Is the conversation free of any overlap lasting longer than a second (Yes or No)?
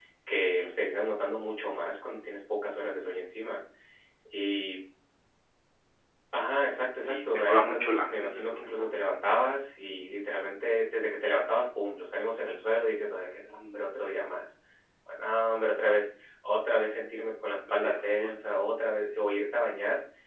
No